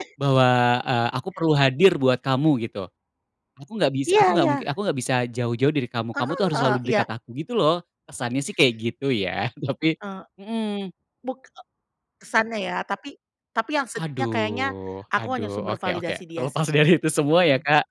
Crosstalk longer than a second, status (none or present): present